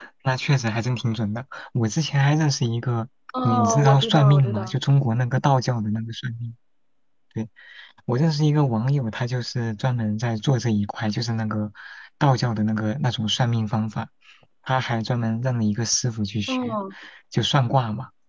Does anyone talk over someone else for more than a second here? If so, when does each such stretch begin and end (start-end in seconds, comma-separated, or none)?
3.4-4.7